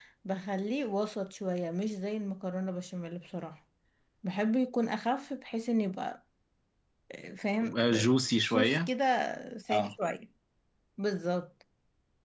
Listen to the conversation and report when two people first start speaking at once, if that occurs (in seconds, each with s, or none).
7.6 s